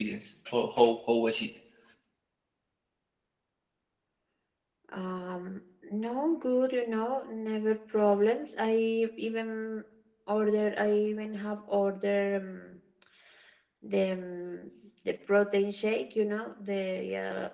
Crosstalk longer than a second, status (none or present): none